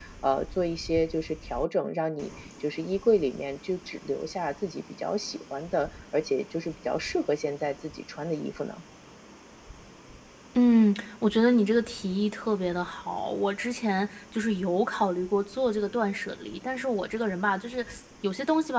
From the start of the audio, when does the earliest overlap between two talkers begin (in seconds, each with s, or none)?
none